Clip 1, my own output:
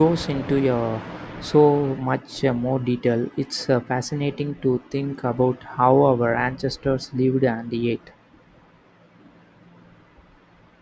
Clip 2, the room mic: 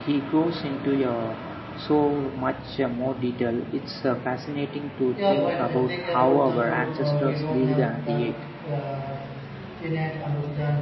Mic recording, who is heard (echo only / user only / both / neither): both